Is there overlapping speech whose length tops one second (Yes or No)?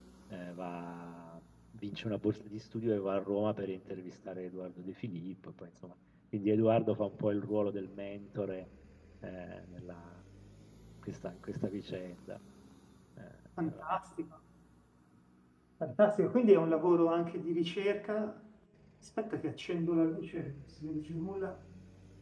No